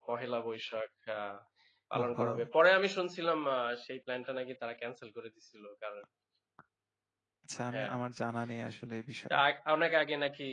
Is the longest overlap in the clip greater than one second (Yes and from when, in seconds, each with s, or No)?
No